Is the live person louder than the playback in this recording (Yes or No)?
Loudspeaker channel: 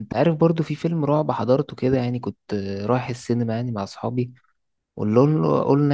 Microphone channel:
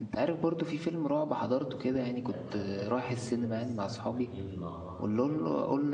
No